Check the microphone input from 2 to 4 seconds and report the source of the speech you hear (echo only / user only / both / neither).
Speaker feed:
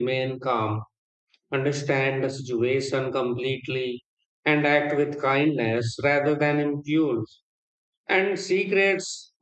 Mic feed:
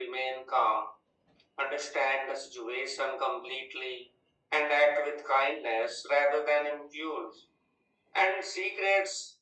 echo only